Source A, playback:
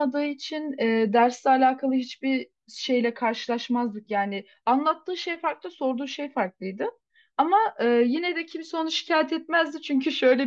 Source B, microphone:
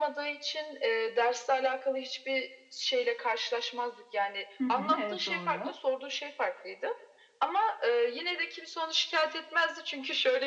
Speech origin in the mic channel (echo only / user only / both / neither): both